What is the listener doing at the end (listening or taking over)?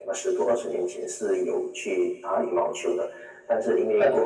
listening